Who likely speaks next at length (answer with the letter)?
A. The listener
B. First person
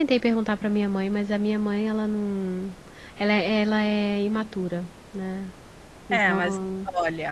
A